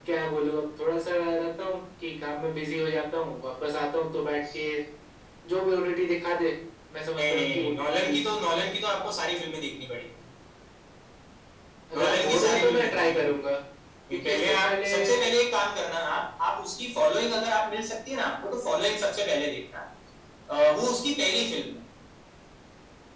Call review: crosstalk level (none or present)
present